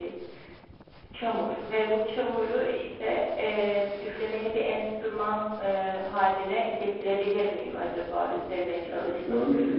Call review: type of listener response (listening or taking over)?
taking over